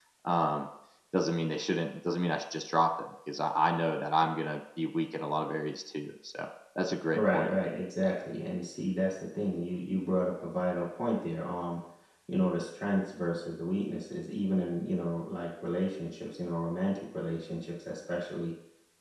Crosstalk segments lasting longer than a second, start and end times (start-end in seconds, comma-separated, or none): none